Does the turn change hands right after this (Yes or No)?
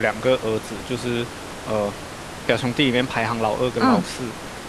No